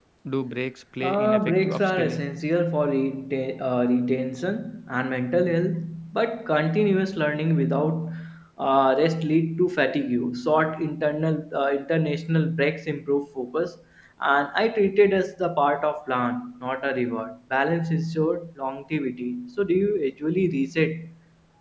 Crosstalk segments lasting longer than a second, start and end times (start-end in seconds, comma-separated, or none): 1.0-2.3